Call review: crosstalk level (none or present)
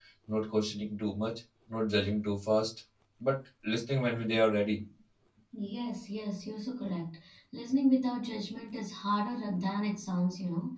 none